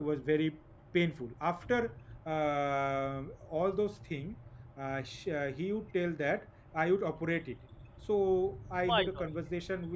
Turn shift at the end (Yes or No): No